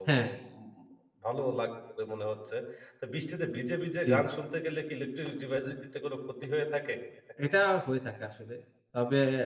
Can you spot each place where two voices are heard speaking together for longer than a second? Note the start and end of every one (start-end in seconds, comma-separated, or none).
none